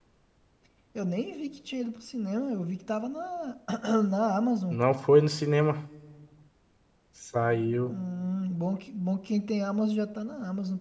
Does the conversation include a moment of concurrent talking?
No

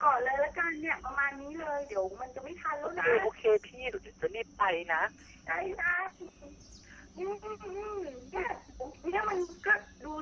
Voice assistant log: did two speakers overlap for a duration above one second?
No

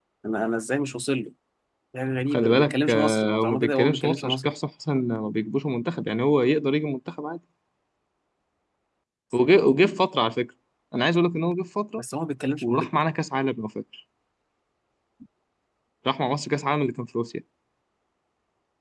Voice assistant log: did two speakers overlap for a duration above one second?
Yes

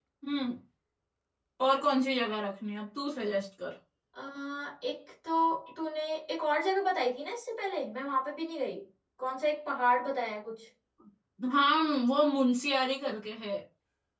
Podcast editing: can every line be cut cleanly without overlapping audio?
Yes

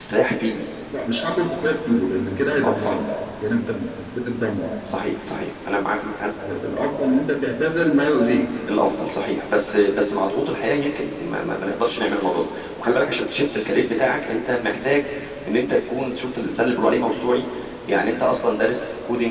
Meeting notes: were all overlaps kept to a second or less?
Yes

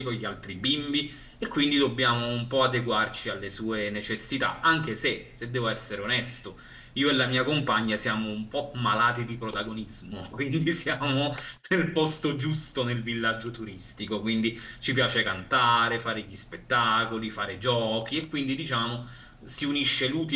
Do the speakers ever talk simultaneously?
No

